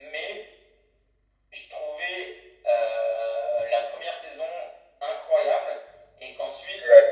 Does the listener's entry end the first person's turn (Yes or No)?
No